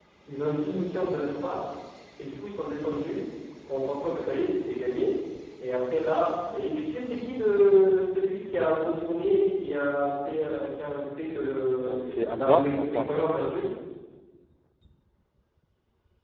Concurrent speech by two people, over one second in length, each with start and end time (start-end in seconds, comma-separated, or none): 11.8-13.3